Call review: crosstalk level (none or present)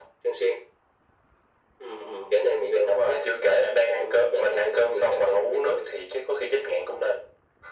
present